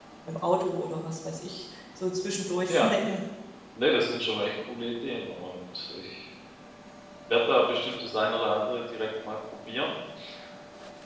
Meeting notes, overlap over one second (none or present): none